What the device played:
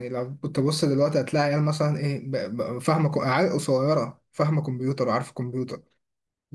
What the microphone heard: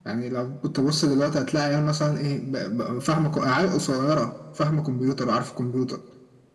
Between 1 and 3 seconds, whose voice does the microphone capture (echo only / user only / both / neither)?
echo only